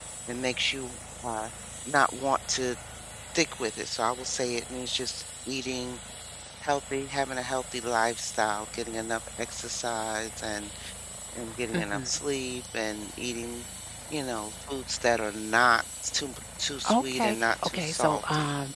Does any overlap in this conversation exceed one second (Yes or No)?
Yes